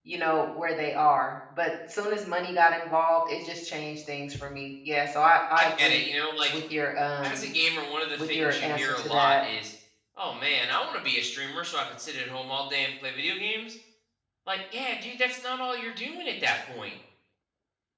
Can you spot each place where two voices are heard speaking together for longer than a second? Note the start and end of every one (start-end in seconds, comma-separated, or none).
8.2-9.4